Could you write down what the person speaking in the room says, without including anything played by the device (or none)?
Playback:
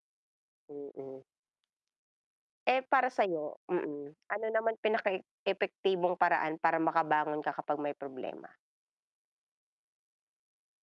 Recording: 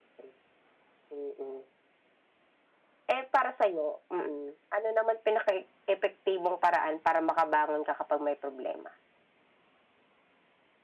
none